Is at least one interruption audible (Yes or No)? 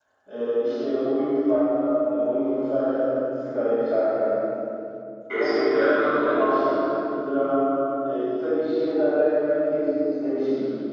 Yes